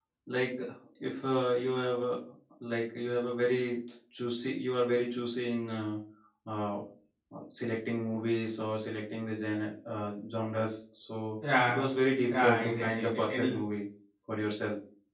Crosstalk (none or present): present